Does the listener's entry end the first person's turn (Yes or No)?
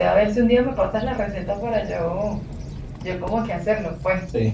Yes